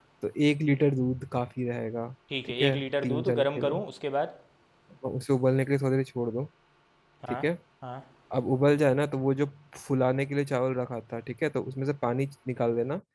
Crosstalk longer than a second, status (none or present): present